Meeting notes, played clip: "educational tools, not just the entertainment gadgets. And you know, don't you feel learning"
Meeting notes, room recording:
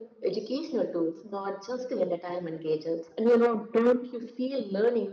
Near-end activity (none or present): none